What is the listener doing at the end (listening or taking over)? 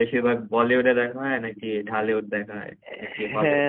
taking over